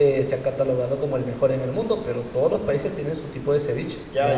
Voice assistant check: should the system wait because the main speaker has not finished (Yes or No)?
No